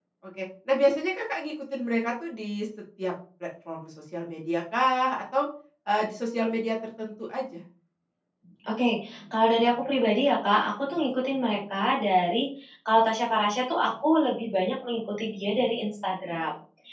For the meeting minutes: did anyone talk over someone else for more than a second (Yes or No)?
No